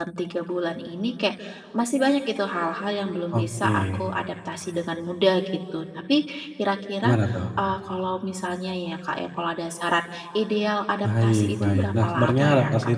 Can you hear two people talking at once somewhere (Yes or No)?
Yes